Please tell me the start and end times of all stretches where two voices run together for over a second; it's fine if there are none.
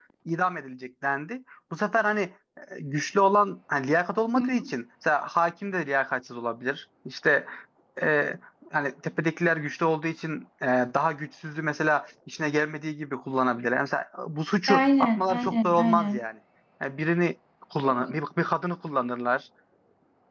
14.7-16.2

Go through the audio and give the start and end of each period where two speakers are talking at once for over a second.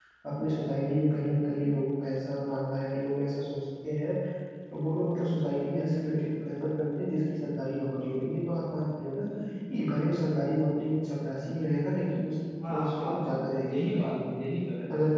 12.7-14.3

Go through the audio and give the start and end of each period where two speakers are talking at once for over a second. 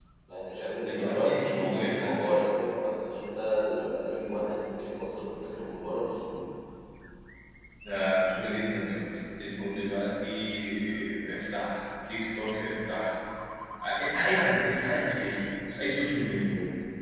0.8-2.3

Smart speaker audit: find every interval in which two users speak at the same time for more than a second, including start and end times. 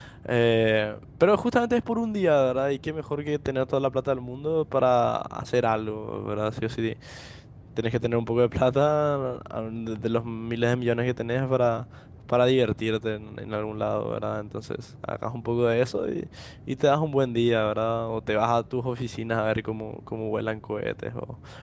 none

